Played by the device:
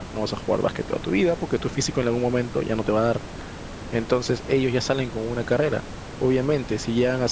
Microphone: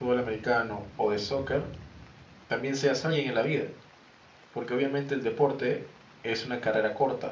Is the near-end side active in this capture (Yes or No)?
Yes